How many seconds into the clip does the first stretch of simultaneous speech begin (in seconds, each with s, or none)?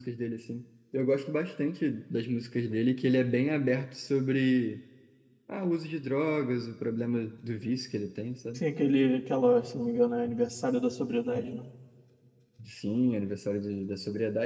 none